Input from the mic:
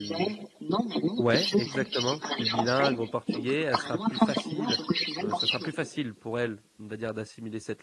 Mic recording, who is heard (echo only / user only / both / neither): both